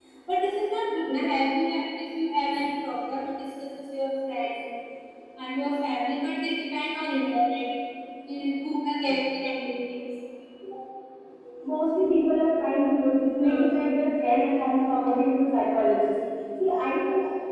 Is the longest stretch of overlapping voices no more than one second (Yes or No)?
Yes